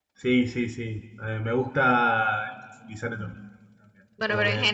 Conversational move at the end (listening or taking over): taking over